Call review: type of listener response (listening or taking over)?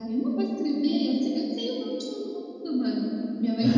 listening